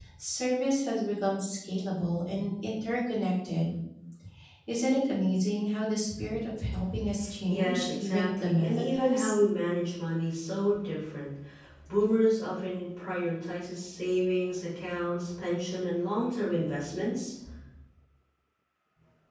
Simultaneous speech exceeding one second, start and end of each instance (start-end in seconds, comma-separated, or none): 7.5-9.3